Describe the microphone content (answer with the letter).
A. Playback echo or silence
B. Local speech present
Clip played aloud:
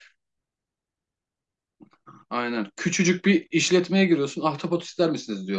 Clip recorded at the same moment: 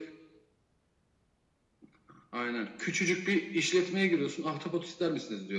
A